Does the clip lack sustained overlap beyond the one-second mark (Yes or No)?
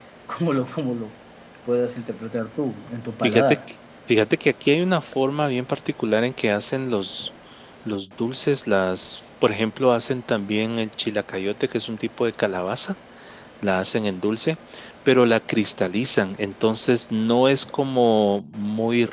Yes